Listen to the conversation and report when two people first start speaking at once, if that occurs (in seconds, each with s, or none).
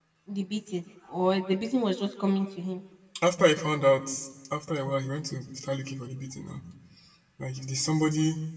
none